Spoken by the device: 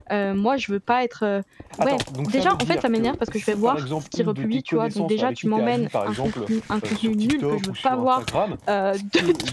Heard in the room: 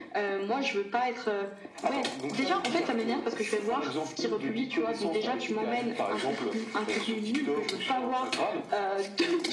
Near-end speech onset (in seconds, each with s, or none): none